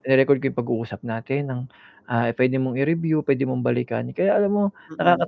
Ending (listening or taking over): listening